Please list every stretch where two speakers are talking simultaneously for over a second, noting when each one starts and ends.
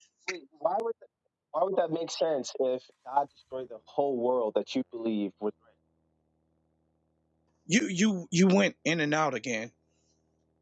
none

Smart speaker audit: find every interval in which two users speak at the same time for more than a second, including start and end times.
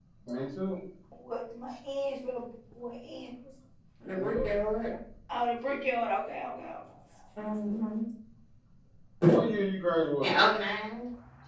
none

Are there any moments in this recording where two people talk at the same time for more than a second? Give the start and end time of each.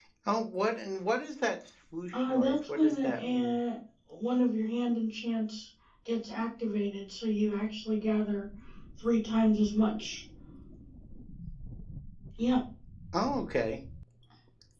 2.1-3.5

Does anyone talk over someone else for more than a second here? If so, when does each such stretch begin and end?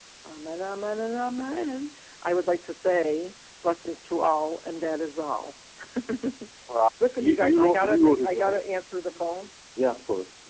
7.2-8.6

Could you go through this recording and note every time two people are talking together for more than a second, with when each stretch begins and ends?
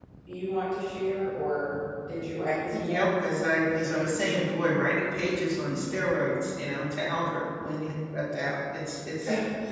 none

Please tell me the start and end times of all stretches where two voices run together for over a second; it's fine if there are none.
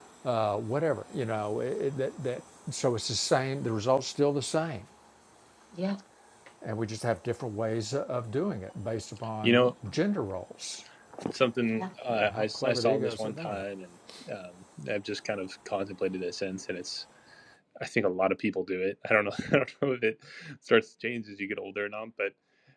11.8-13.6

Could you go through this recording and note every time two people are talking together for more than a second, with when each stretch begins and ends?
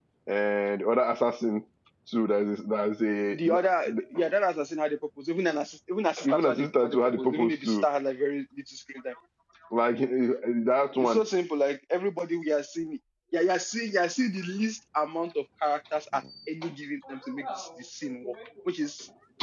6.3-7.9

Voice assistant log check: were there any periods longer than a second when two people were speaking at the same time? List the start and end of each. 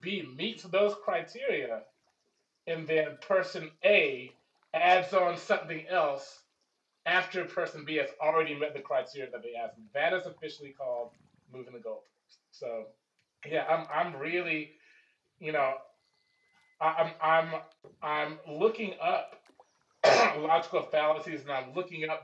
none

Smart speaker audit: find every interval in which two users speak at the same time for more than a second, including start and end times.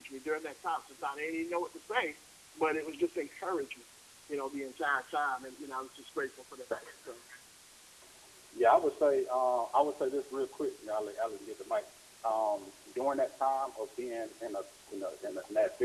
none

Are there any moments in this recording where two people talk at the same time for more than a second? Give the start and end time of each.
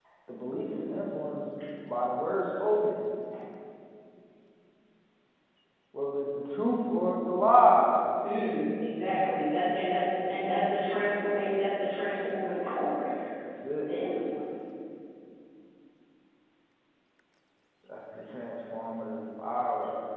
none

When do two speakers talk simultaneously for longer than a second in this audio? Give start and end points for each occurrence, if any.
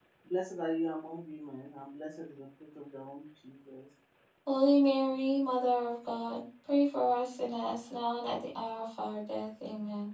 none

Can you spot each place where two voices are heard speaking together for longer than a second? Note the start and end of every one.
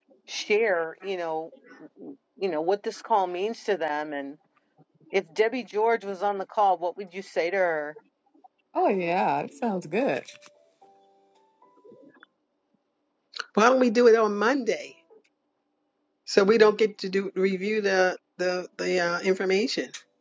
none

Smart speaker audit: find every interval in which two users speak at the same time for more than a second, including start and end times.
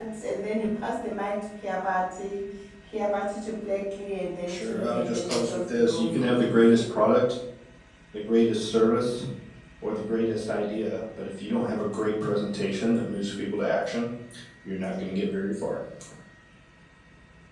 4.5-6.6

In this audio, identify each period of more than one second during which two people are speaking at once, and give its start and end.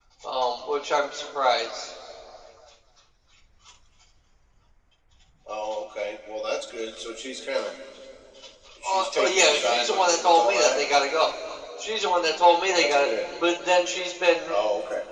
8.8-10.8

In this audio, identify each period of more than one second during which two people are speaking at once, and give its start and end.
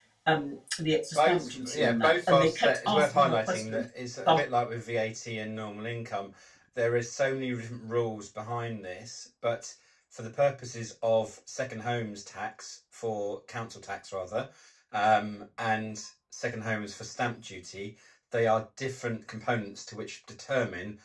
1.1-3.8

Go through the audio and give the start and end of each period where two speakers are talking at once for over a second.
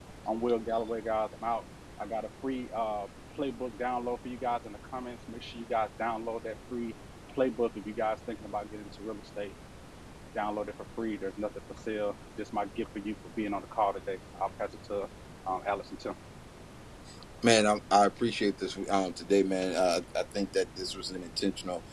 none

